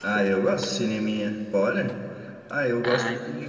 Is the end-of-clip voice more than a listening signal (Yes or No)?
No